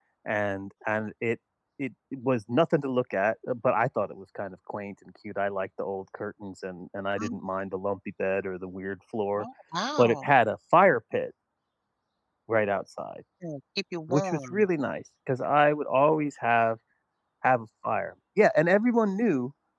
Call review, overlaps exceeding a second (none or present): none